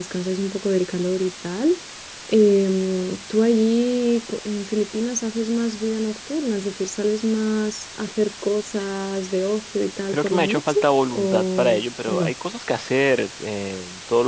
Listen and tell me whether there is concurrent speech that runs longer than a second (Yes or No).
Yes